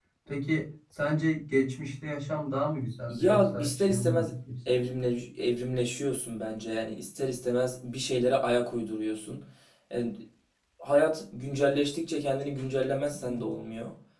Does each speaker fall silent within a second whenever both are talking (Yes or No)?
No